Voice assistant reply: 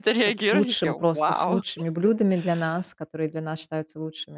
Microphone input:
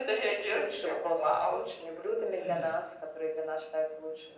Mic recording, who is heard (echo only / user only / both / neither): both